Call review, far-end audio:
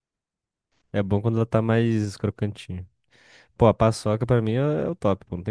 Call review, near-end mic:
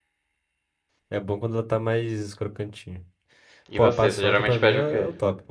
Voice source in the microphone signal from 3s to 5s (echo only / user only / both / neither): both